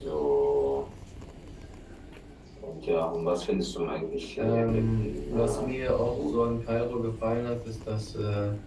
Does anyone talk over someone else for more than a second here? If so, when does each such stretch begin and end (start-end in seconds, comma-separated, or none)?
4.4-5.7